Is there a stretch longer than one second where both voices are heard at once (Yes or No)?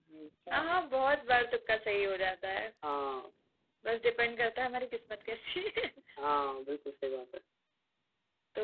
No